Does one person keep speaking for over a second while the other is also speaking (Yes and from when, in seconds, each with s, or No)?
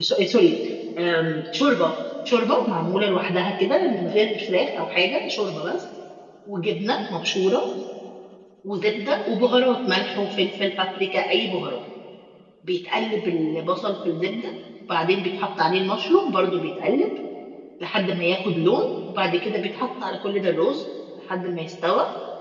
No